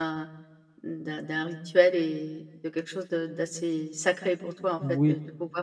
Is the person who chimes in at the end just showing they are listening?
Yes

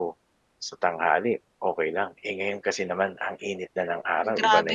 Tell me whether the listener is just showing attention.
No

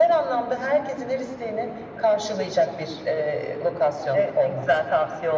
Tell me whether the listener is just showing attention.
No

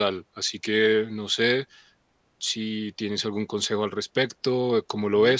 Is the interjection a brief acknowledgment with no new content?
No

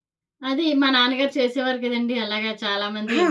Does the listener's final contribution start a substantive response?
No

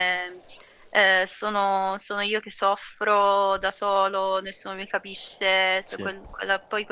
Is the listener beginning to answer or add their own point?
No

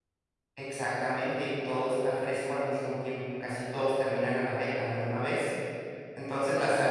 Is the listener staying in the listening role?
Yes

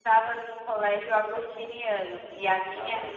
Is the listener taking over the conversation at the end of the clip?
No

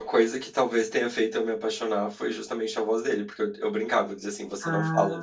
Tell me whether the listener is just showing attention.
Yes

